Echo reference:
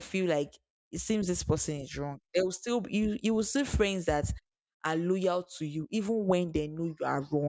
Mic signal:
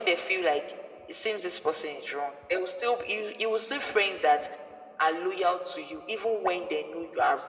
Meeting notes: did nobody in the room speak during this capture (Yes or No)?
Yes